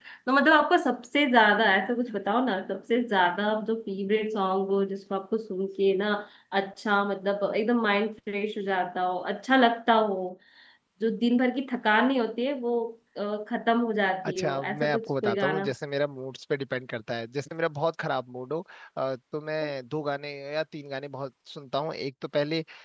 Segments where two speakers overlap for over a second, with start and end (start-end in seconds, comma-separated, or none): 14.2-15.7